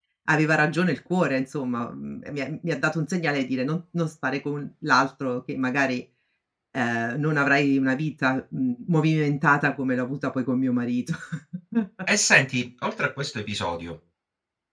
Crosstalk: none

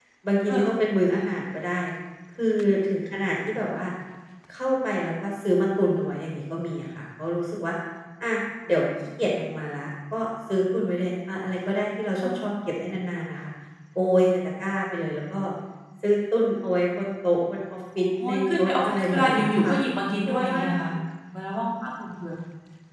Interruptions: present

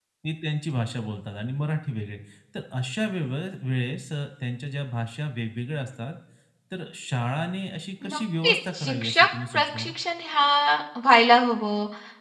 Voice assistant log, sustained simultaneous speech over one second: present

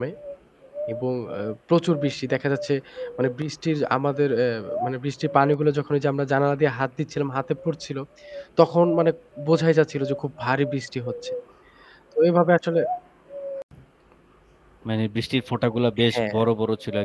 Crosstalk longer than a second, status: none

